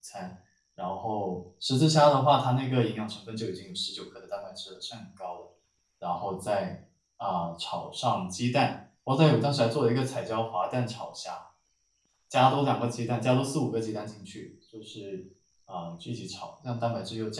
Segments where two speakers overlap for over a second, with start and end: none

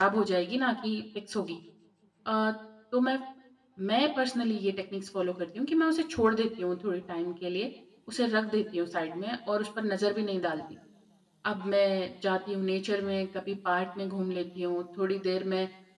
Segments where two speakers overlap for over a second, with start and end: none

